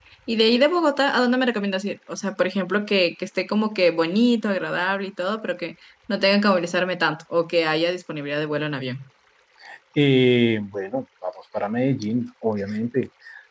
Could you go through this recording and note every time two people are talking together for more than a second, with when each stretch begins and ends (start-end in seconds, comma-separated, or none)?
none